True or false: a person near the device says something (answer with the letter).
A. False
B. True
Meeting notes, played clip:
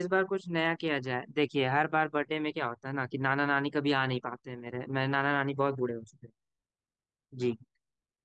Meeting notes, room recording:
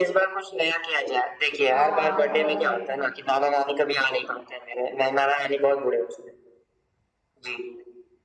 B